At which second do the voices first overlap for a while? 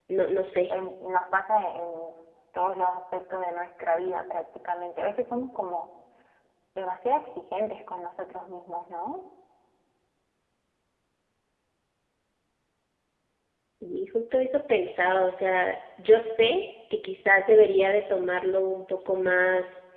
none

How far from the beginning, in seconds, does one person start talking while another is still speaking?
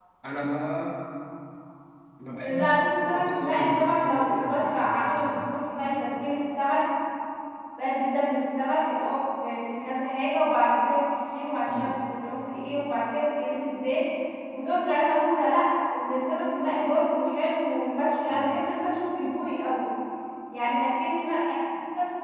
2.6 s

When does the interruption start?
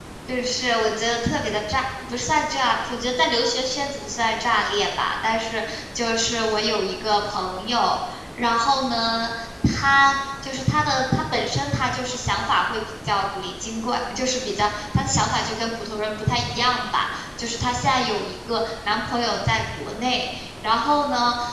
none

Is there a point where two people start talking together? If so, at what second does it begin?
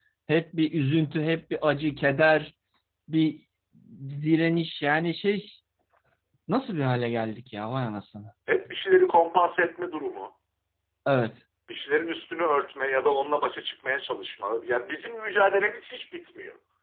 none

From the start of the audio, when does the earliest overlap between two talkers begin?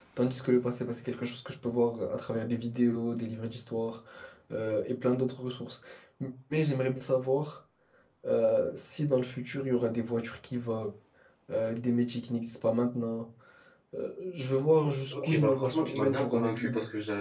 15.1 s

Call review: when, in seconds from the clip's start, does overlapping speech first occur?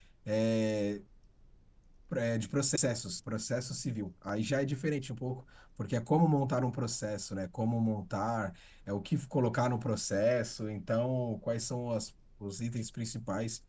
none

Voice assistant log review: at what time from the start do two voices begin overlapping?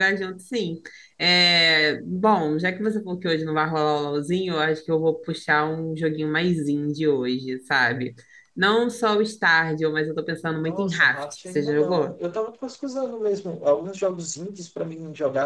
10.6 s

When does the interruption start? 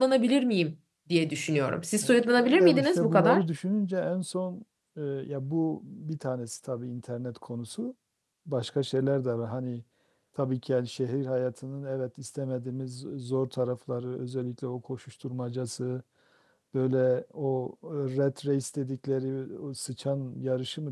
2.0 s

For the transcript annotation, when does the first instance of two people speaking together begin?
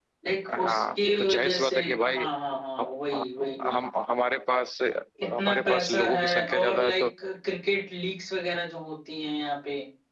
0.6 s

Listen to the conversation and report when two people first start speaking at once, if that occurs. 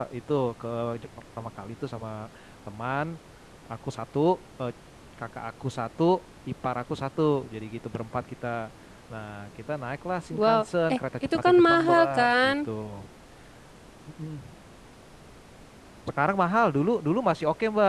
10.3 s

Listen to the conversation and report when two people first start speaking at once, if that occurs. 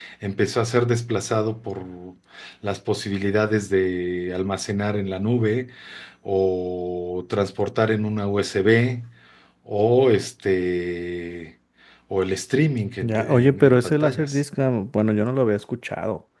13.0 s

